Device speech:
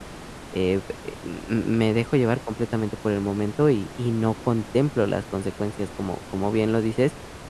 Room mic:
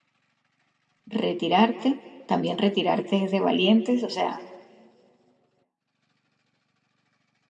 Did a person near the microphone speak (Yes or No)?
Yes